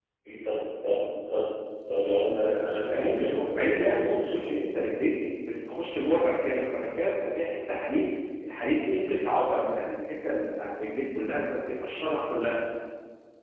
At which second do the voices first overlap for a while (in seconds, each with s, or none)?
2.9 s